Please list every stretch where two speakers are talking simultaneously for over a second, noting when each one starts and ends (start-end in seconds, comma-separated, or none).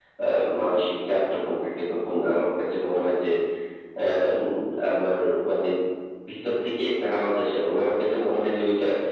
none